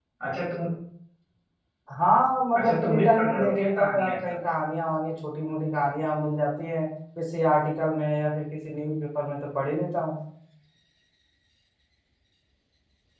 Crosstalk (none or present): present